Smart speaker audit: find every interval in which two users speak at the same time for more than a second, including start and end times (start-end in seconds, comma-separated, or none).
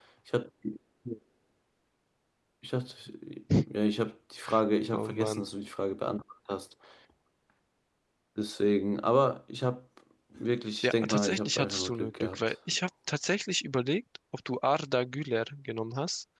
10.8-12.4